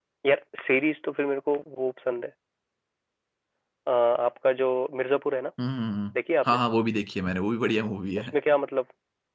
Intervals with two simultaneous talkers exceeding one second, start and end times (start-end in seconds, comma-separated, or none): none